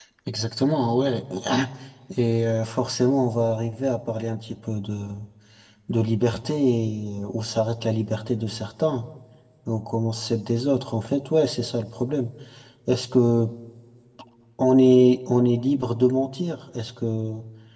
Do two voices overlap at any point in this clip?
No

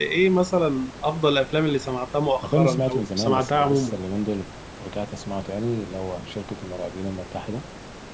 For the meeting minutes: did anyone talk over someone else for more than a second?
Yes, from 2.4 s

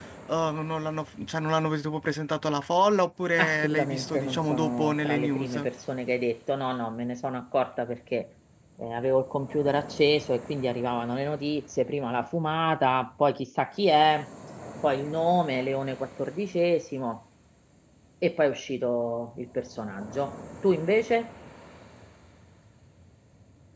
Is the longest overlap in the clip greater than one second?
Yes, from 3.4 s

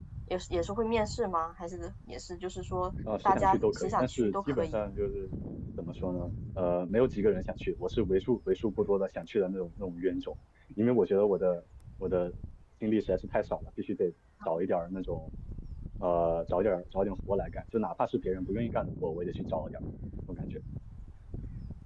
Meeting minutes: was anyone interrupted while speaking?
Yes, from 3.1 s

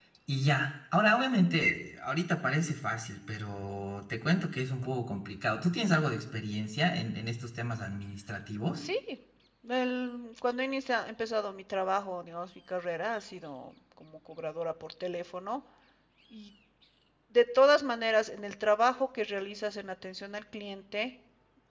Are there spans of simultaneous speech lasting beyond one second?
No

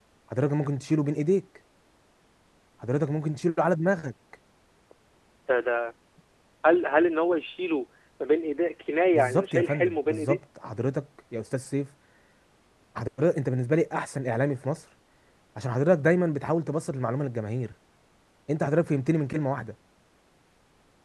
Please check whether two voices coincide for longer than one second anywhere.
Yes, from 9.1 s

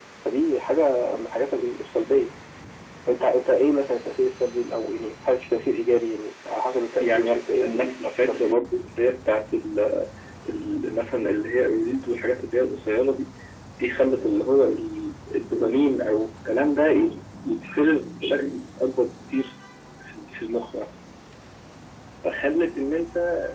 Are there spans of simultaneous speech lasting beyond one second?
Yes, from 7.0 s

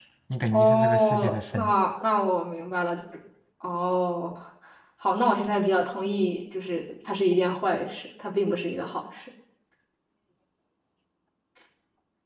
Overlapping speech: Yes, from 0.5 s

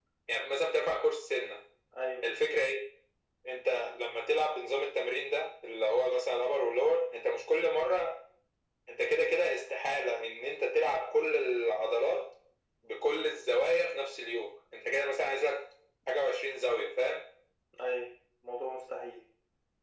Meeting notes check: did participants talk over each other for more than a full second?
No

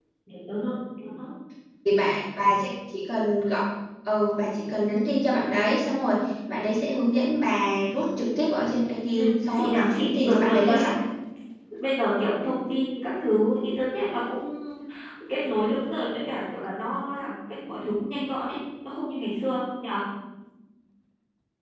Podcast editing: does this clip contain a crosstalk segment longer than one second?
Yes, from 9.2 s

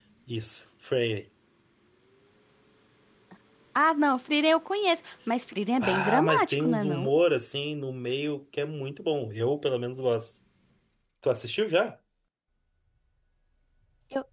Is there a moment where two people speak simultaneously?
Yes, from 5.8 s

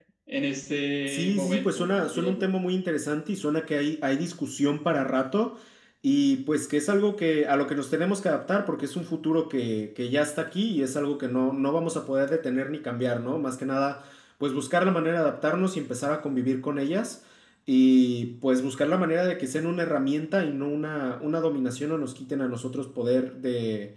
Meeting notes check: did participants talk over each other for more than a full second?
Yes, from 1.1 s

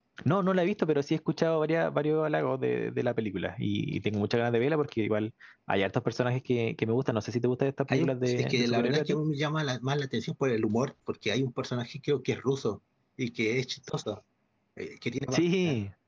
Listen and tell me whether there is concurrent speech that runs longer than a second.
Yes, from 7.9 s

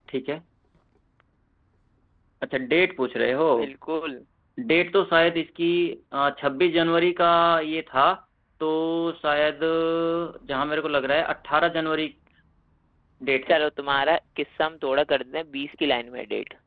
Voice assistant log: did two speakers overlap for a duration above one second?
No

